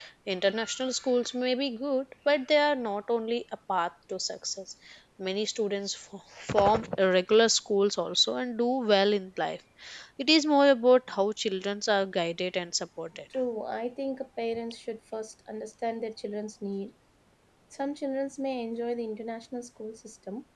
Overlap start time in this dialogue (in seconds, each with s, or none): none